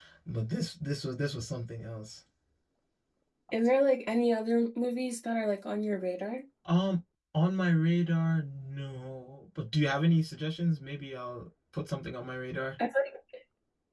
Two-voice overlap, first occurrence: none

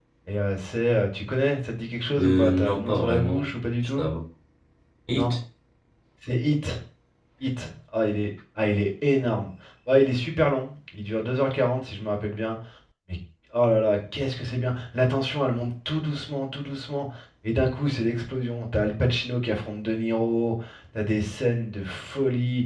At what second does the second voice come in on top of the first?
2 s

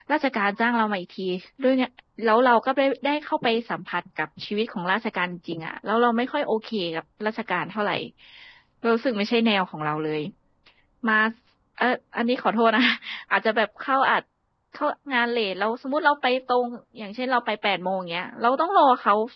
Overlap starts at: none

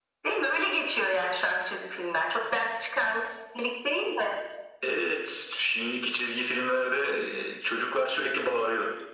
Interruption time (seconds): none

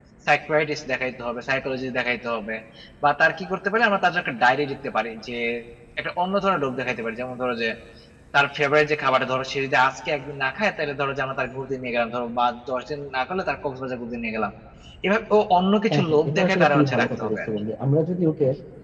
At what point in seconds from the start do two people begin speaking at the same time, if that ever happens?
16 s

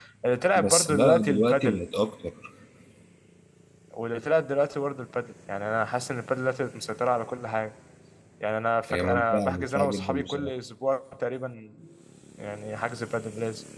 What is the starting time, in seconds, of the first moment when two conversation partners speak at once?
1 s

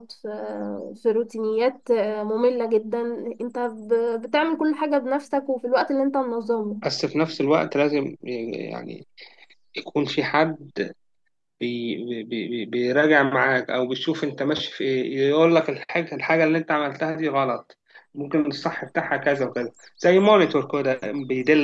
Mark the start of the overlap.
none

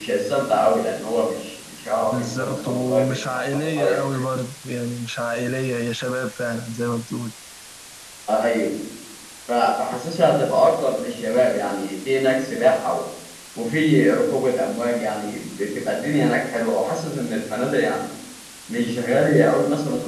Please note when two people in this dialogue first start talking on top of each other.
2 s

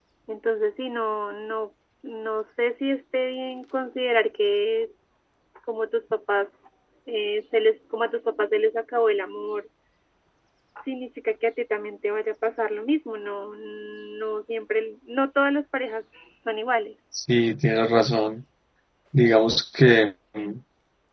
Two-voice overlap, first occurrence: none

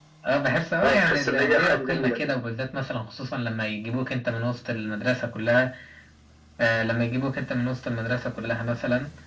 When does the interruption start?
1 s

